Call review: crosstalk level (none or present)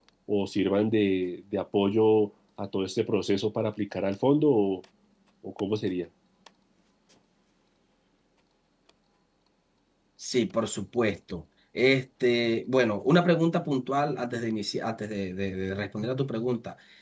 none